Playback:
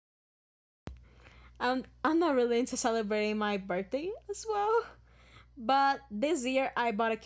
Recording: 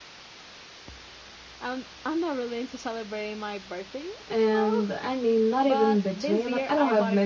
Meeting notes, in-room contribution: present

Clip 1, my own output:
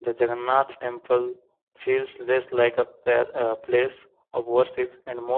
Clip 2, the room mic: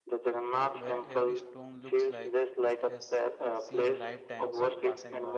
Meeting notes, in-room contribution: present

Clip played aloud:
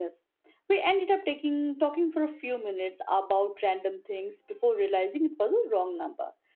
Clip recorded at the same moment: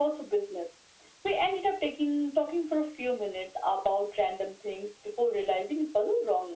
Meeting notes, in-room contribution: none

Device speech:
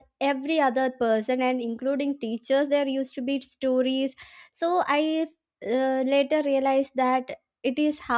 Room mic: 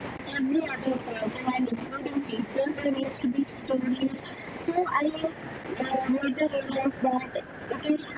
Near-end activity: none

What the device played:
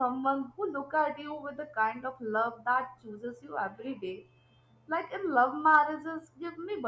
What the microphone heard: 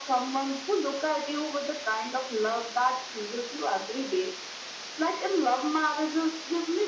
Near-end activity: none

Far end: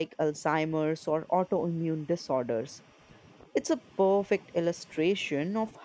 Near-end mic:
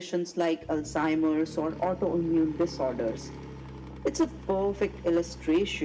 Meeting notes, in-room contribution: none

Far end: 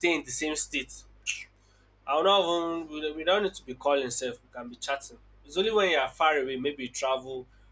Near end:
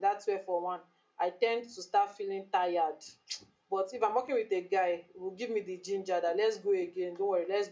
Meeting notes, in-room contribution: present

